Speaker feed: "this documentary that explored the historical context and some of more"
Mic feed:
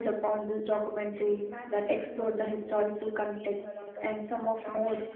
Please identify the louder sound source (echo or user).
echo